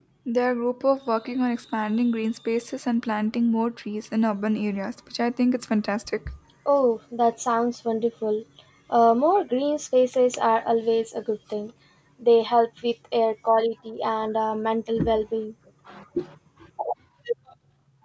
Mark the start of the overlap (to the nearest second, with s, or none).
none